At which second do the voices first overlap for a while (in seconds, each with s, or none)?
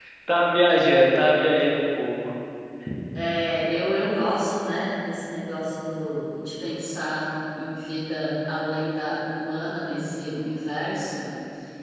none